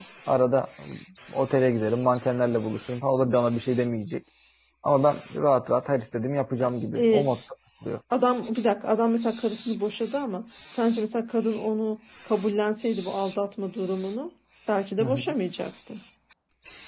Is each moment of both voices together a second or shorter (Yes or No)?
Yes